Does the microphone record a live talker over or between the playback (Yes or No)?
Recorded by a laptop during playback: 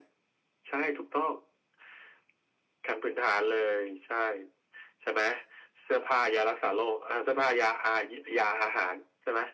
No